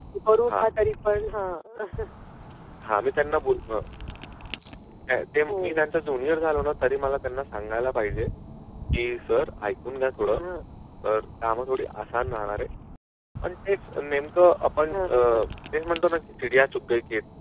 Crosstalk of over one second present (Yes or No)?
No